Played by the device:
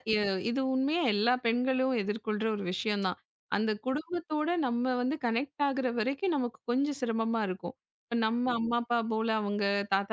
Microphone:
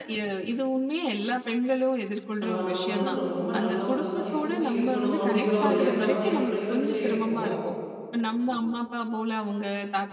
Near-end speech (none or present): present